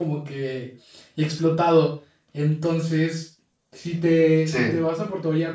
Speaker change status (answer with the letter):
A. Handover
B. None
B